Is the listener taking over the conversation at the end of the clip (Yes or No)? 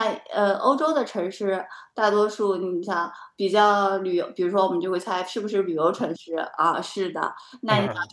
No